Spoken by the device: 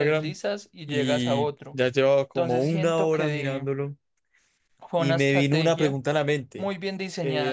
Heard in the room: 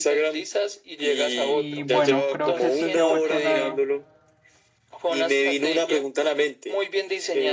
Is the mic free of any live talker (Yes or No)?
No